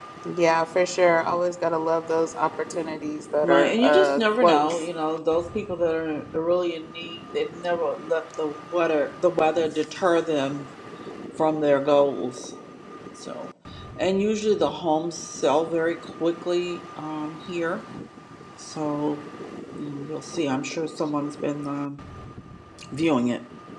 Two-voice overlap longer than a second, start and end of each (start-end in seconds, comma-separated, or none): 3.4-4.8